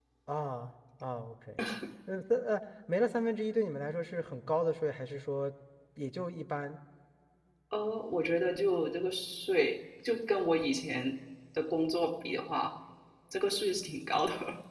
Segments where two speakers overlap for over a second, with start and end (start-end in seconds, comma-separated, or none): none